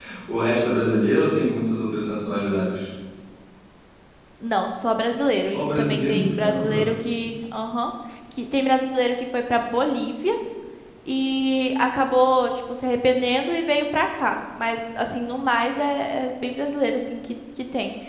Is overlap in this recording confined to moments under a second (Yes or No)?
No